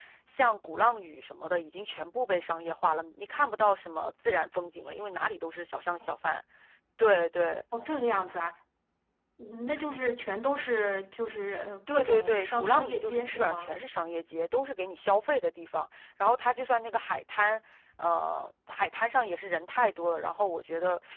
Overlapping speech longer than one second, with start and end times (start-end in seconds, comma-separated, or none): 11.9-13.7